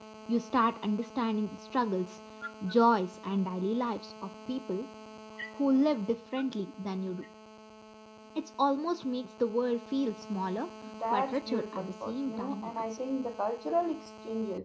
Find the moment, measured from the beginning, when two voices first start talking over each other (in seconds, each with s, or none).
11.1 s